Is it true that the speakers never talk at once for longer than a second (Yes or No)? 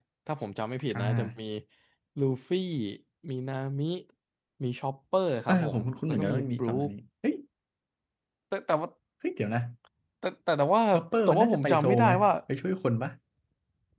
No